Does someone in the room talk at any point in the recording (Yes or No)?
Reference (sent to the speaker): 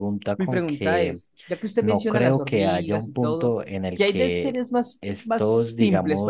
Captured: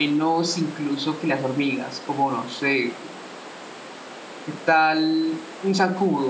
Yes